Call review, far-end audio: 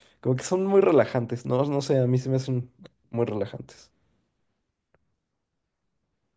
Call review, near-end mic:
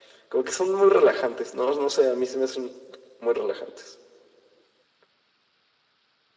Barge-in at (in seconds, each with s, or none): none